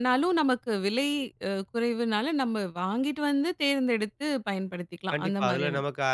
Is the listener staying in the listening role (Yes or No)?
No